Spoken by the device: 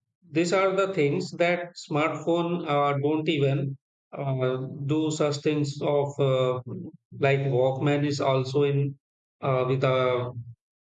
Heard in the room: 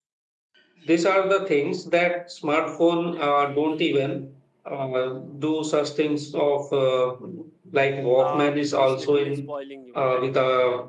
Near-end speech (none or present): present